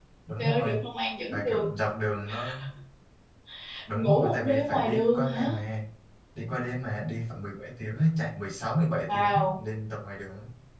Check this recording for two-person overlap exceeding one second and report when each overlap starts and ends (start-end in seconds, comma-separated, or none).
3.9-5.5